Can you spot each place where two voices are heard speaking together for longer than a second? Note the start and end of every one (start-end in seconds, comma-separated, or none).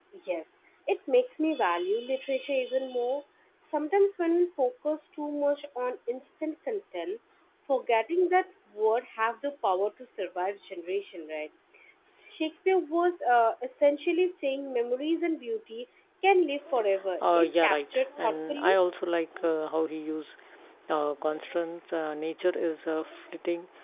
17.4-18.7